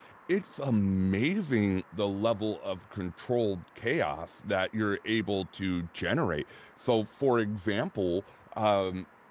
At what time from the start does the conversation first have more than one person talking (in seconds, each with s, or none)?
none